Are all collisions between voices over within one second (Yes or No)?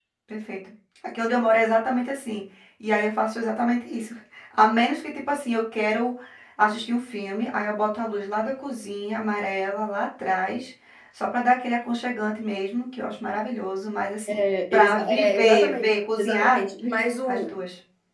No